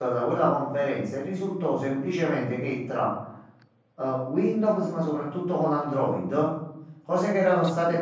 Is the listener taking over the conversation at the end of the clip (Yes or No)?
No